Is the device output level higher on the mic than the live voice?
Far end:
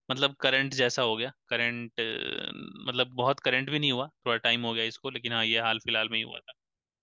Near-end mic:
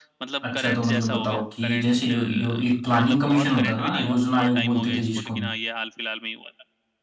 No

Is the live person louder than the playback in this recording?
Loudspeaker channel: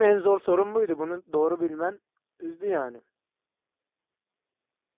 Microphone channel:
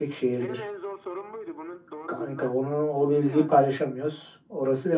Yes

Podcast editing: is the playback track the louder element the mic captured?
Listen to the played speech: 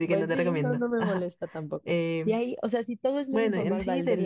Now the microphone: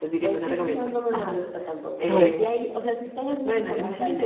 No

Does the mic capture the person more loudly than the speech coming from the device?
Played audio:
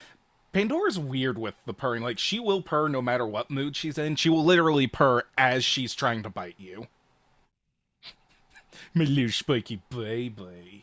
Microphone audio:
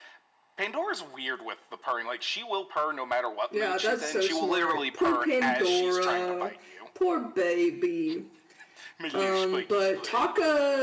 Yes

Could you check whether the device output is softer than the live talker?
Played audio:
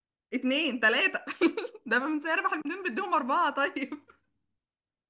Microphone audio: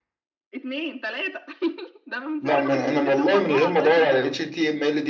Yes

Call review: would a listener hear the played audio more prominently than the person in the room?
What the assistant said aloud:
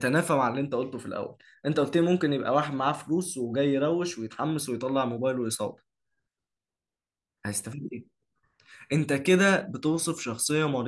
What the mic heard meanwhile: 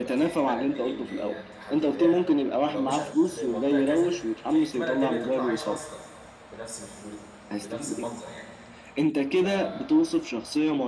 Yes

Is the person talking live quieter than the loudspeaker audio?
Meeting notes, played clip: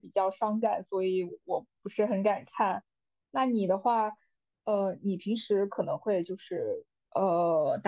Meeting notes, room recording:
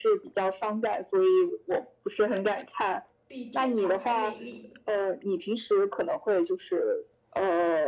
Yes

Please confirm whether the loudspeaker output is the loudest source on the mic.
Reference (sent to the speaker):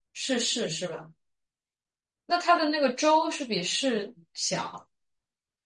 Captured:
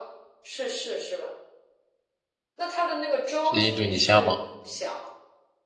No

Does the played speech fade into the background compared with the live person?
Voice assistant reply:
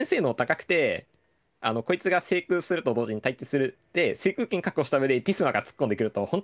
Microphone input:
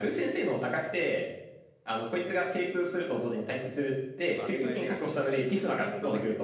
No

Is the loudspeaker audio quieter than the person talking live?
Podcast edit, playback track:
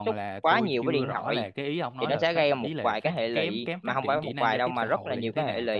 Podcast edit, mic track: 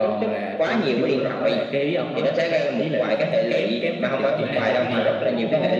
No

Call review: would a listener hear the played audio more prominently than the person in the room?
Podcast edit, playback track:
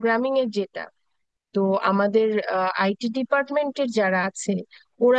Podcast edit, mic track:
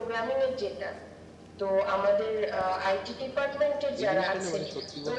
Yes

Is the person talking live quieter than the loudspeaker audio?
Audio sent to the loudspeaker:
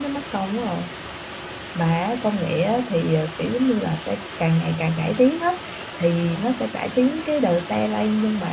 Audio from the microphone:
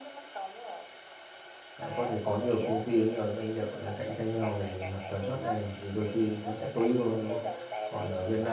No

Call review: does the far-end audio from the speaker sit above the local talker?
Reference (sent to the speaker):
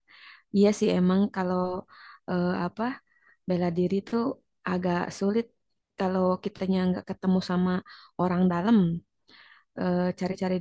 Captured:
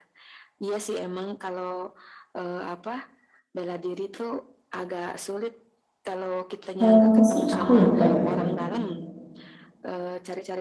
No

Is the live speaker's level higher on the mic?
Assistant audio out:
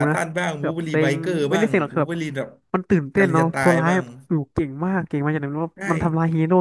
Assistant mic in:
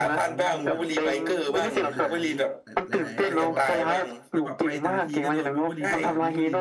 No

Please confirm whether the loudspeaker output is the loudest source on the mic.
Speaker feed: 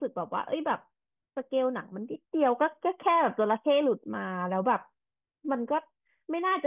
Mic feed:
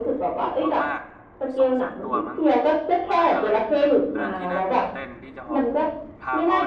Yes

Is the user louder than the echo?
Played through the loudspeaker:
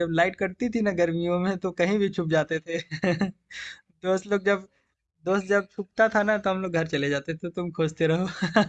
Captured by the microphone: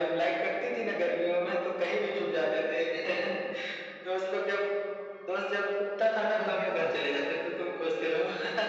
No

